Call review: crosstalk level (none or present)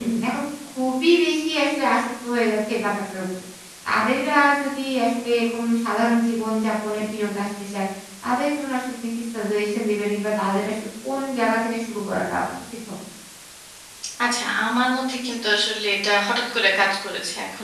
none